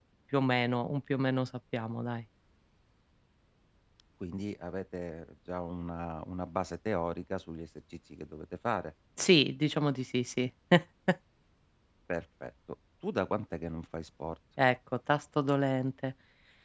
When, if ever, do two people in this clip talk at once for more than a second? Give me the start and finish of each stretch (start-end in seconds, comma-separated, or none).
none